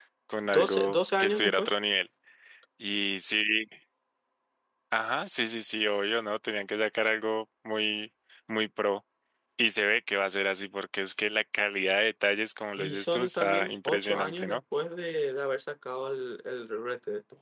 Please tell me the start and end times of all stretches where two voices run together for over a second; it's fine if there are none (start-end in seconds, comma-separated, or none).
0.5-1.8, 12.8-14.6